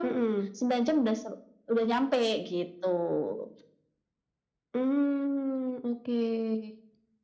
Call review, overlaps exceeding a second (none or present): none